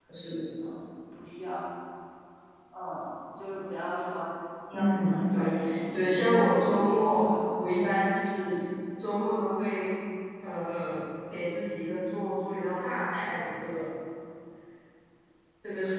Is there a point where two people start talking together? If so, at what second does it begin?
4.7 s

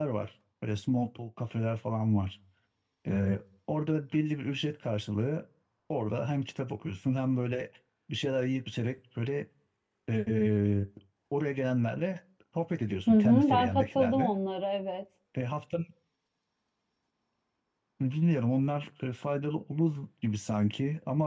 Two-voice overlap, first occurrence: 13.1 s

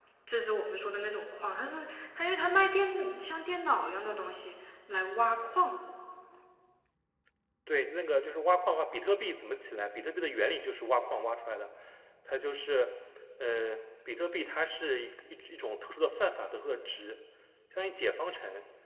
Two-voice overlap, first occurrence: none

